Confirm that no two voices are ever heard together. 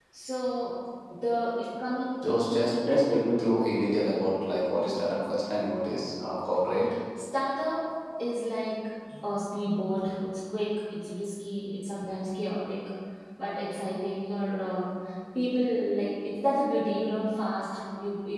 Yes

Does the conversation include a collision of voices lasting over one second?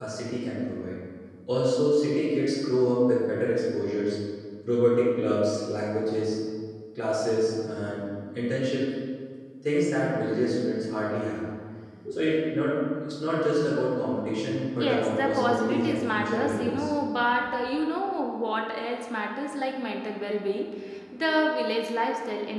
Yes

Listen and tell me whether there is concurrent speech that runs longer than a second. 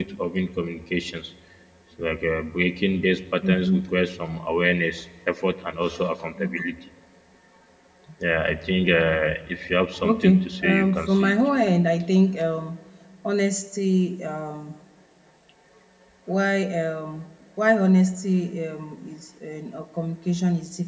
Yes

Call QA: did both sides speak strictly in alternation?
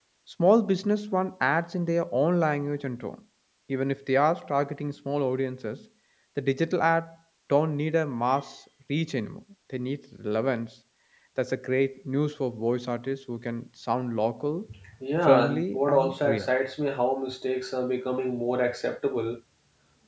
No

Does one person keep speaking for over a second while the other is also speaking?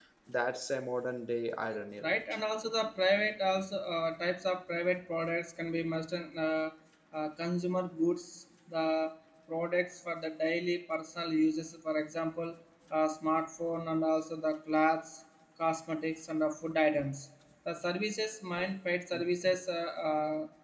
No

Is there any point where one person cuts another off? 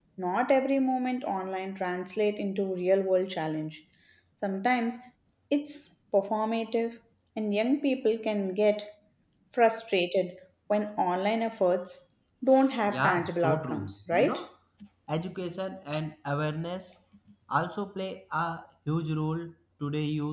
Yes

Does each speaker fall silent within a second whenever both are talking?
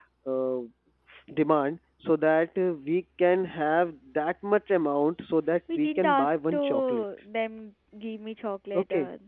No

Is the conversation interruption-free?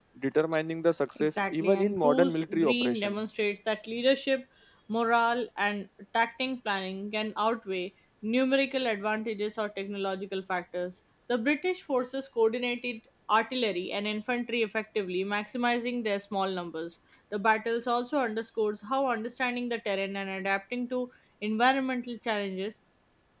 No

